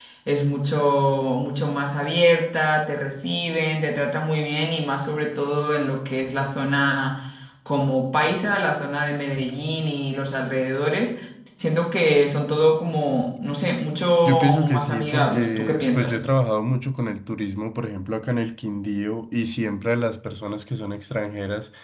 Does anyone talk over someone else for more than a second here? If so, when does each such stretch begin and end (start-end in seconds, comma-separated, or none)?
14.2-16.2